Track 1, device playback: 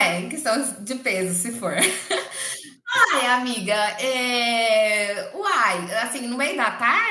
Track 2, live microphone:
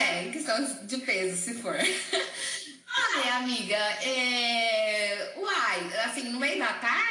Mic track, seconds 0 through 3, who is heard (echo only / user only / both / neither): echo only